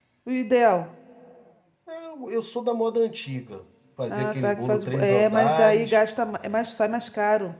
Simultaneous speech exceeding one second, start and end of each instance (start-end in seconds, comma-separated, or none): 4.1-6.0